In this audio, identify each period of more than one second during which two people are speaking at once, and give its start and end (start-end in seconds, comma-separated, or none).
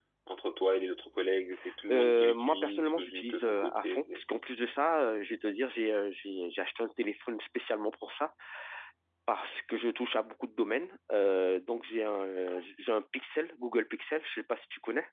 1.9-4.2